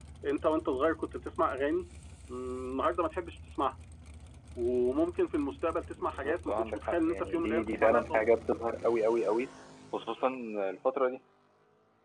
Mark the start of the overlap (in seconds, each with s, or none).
6.0 s